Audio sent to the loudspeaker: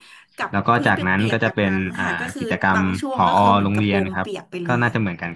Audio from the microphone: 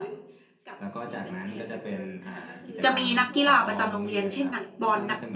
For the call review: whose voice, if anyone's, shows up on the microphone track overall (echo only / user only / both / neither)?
both